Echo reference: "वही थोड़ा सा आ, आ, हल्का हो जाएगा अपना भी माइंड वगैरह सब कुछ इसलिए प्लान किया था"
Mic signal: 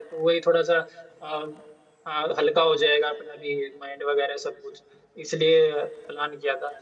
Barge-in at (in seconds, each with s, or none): none